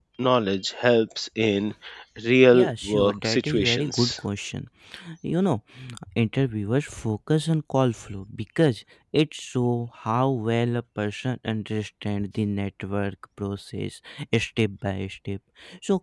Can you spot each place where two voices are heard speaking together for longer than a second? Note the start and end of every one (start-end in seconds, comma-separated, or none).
2.5-4.2